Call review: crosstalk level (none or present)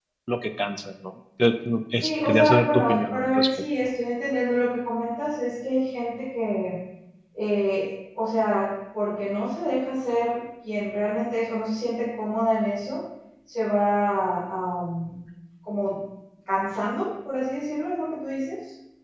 present